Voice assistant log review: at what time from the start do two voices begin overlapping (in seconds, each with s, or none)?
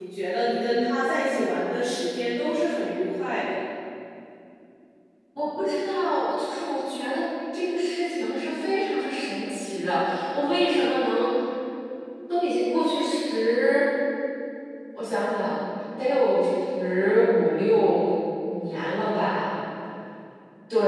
none